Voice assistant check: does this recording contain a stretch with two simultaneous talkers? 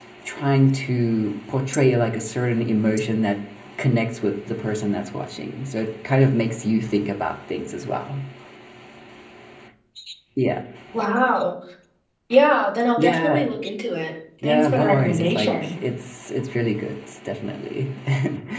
Yes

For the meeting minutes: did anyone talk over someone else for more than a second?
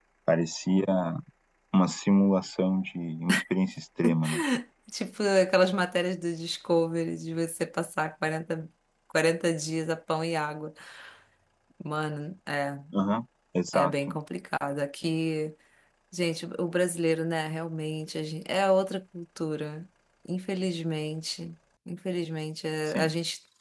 No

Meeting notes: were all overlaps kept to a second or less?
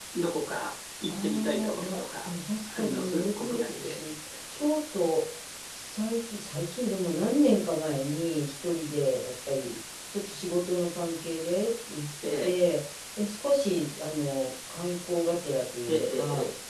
No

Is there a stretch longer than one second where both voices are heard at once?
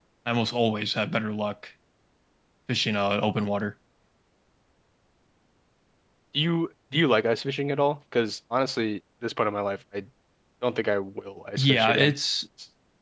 No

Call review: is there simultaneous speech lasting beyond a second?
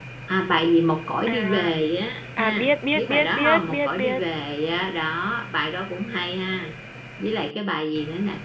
Yes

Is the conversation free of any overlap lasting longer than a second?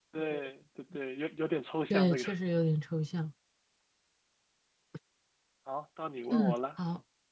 Yes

